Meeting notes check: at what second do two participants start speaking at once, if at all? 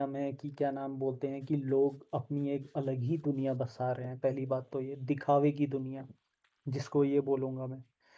none

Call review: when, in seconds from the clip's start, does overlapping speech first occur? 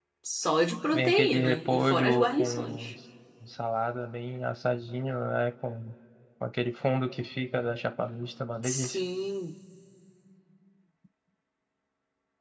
0.9 s

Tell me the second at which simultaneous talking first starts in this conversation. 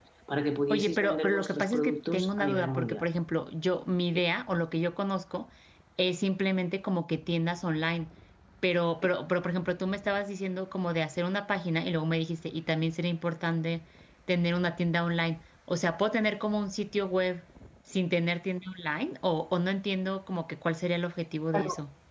0.7 s

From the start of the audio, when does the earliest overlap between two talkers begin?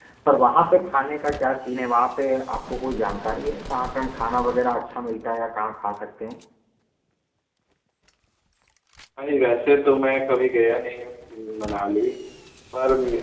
none

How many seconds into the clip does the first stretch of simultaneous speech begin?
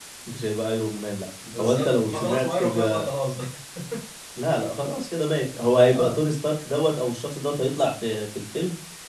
1.6 s

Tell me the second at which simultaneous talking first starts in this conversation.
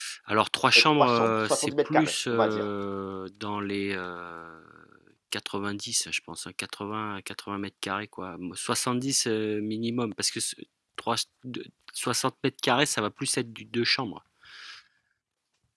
0.8 s

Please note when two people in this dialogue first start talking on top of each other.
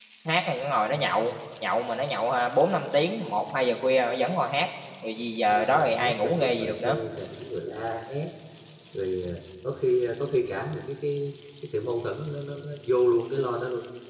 5.5 s

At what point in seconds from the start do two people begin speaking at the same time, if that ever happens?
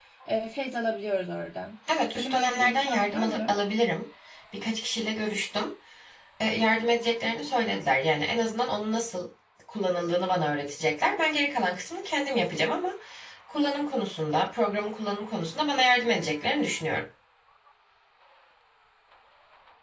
2.2 s

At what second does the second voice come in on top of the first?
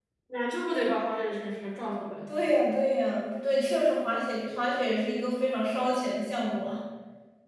none

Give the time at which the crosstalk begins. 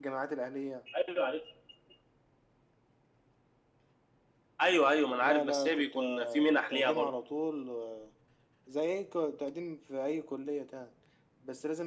5.2 s

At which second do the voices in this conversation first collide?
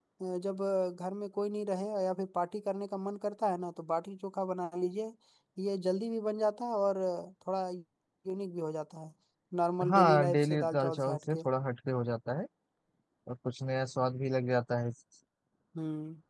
9.9 s

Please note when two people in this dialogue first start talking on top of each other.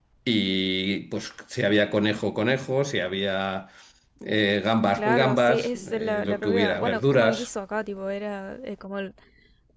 4.9 s

